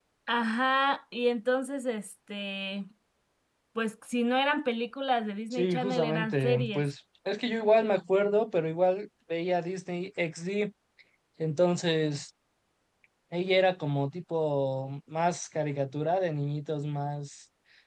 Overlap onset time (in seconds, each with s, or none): 5.5 s